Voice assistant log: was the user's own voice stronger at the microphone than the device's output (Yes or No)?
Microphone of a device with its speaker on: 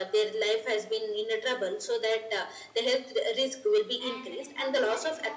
No